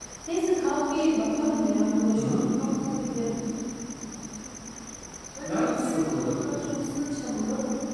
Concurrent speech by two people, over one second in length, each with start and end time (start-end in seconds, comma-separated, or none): 5.4-6.7